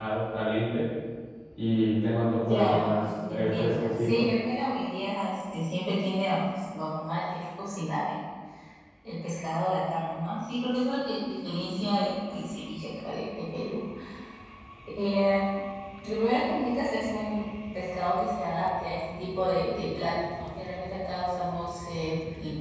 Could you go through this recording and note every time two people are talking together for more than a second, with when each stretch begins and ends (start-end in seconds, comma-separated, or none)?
2.5-4.3